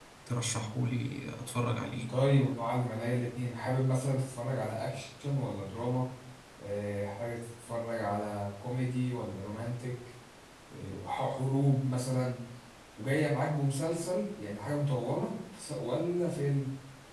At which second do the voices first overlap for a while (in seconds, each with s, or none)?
none